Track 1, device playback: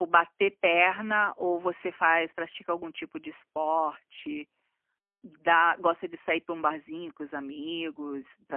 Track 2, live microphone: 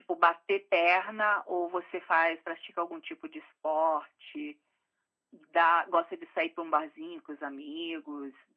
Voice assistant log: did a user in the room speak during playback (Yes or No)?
No